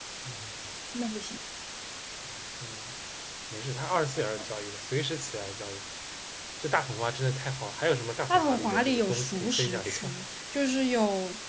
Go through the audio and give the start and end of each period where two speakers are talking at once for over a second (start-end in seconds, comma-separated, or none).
8.3-10.2